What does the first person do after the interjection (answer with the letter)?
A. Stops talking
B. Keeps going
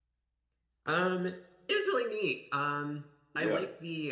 B